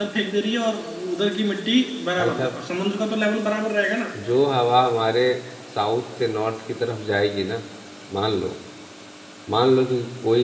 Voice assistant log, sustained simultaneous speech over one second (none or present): none